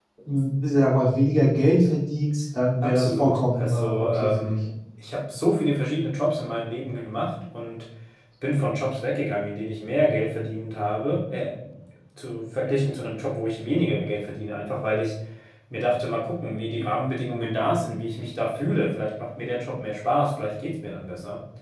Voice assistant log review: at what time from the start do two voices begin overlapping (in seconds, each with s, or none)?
2.8 s